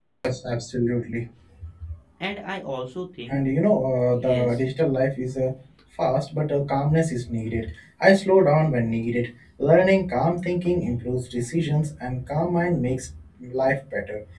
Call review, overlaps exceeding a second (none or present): none